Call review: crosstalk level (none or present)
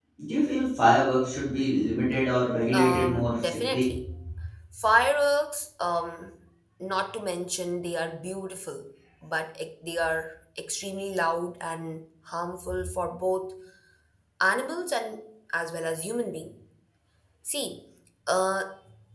present